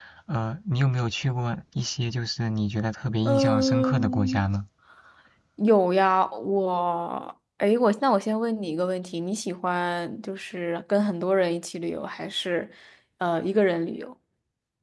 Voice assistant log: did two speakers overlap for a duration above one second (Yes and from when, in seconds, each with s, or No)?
Yes, from 3.2 s